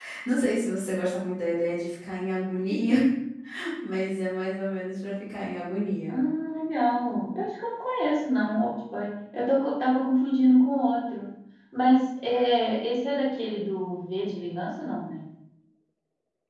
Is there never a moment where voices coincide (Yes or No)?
Yes